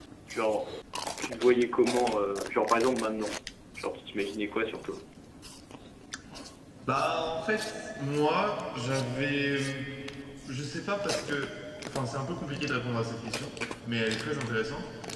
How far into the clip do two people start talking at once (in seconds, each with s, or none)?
none